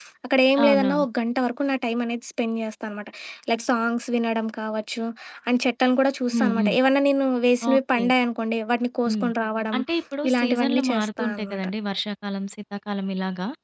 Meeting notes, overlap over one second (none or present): present